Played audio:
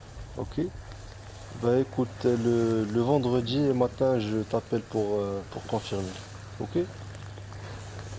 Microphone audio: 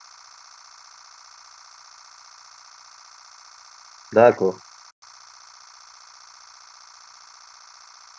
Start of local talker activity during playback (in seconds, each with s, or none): 4.1 s